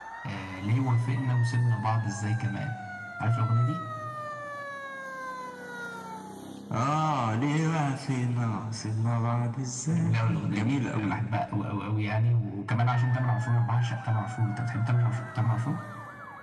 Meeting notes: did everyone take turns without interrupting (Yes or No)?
No